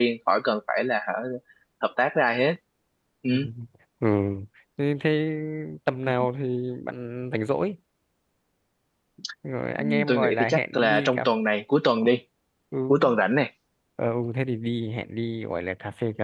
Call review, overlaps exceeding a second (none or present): present